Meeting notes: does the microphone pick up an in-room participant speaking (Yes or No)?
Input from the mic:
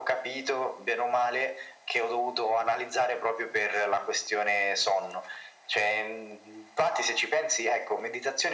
No